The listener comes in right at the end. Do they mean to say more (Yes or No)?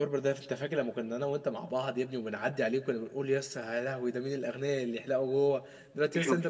No